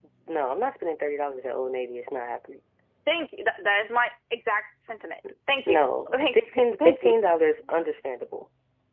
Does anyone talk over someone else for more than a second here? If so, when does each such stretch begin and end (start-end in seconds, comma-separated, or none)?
5.7-7.2